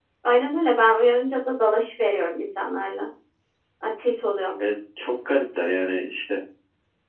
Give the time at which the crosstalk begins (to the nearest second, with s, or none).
none